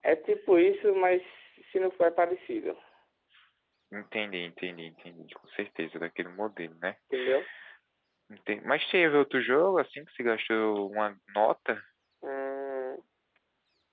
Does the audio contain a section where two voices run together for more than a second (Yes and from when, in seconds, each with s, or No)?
No